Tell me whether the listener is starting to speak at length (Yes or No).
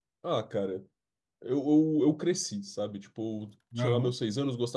No